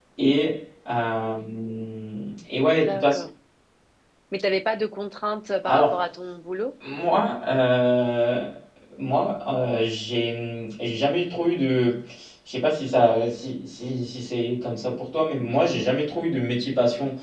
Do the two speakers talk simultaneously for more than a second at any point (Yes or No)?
No